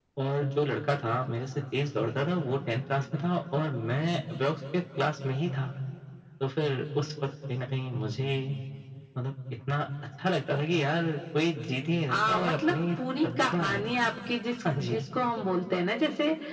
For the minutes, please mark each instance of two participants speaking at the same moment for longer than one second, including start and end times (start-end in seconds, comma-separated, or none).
12.1-13.9